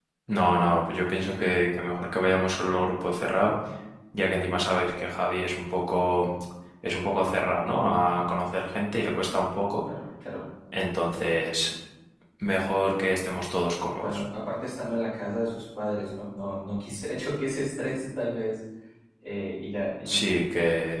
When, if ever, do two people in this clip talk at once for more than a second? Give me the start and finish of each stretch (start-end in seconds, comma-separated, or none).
none